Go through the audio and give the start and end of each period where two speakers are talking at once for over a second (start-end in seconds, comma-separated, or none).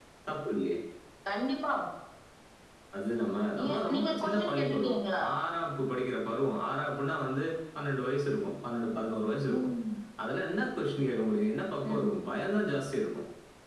3.6-5.2